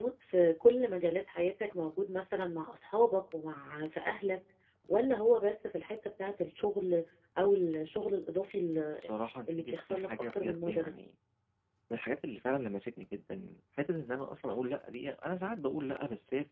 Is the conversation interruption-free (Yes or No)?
No